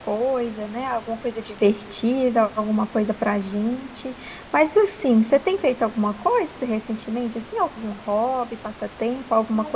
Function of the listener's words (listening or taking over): taking over